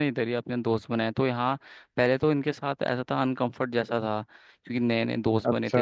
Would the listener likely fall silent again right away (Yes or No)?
Yes